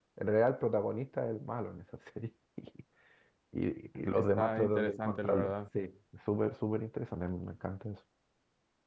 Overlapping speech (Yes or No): Yes